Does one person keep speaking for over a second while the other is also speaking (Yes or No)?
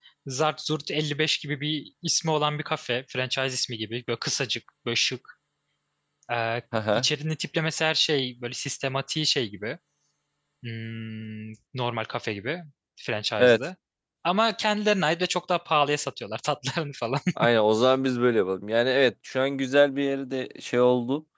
No